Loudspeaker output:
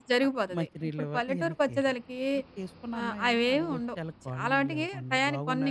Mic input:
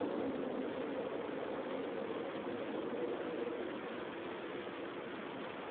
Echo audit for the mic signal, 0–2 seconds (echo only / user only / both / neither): neither